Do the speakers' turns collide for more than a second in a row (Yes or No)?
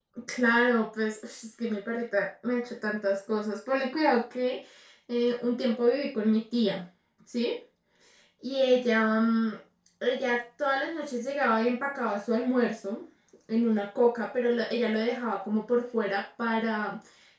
No